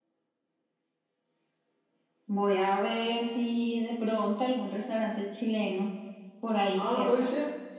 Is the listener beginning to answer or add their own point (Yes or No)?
Yes